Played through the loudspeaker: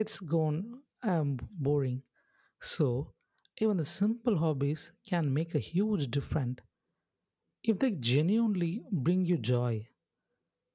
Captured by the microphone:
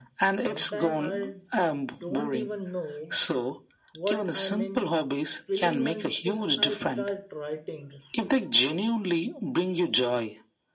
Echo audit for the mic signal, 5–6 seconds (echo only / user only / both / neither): both